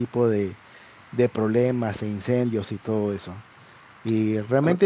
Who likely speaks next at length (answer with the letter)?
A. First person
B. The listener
A